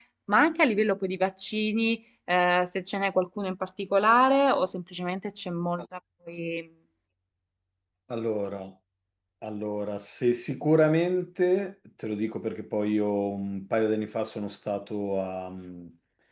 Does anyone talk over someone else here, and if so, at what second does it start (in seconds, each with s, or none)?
none